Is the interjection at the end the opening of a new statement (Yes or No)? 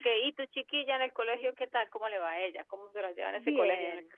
Yes